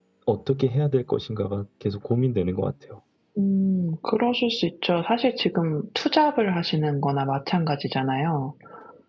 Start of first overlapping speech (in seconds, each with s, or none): none